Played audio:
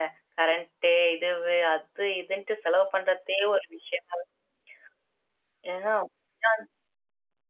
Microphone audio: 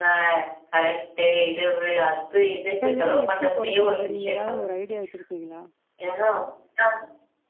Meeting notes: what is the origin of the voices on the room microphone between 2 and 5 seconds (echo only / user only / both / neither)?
both